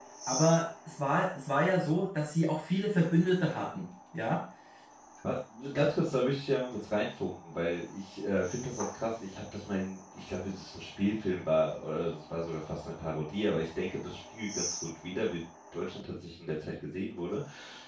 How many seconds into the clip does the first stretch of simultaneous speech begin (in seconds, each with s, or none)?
none